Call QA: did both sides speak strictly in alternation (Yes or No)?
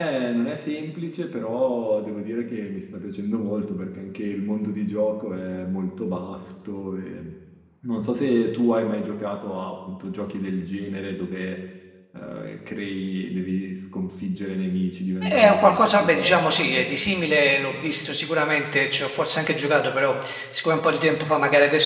No